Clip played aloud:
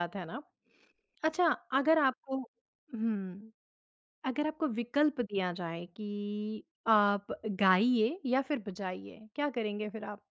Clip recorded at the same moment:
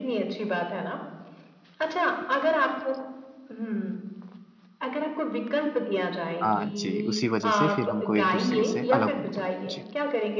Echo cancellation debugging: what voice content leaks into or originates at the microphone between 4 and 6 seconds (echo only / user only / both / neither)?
echo only